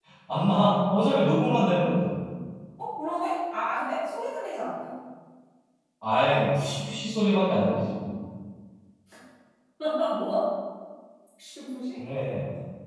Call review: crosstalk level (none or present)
none